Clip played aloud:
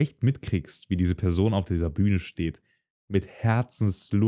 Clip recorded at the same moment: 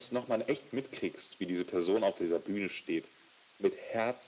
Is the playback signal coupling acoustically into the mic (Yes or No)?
Yes